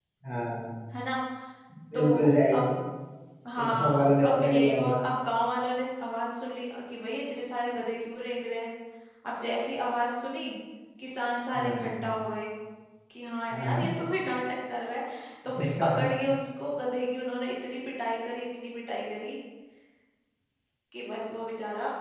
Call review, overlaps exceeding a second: present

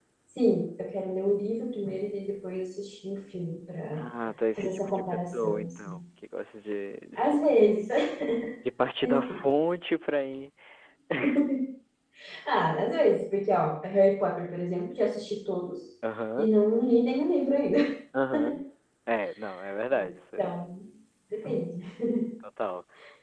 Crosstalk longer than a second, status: present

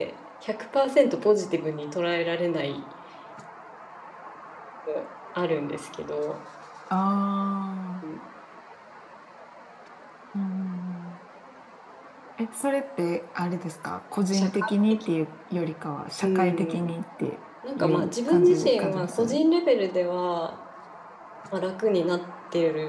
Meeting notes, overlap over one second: present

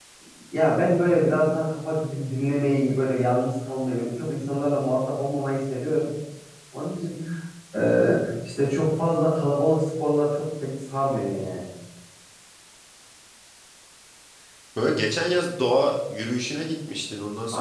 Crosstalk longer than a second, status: none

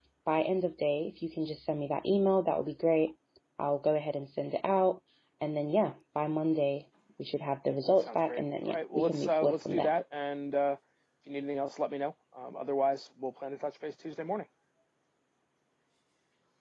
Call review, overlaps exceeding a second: present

